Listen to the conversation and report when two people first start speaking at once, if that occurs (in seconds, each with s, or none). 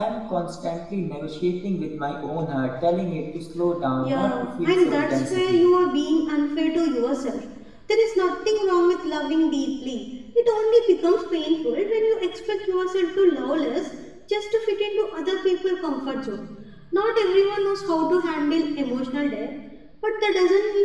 4.0 s